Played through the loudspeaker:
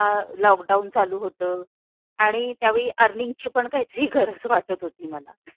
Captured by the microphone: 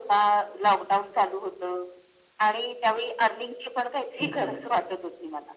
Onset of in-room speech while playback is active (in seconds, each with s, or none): 4.2 s